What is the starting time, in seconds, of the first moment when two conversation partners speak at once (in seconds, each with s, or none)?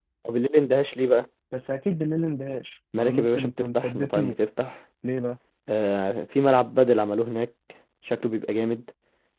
2.9 s